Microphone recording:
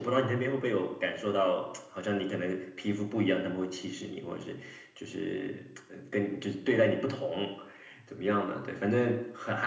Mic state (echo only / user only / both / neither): echo only